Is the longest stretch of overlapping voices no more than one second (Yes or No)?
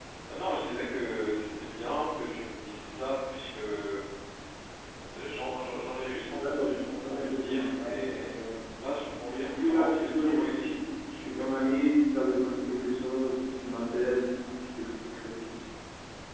No